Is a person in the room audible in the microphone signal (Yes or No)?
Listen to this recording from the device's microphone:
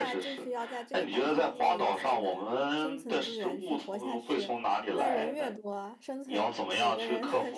Yes